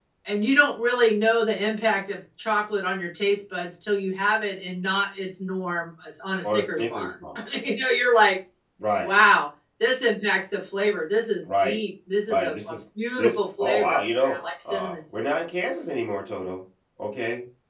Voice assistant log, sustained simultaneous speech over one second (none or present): present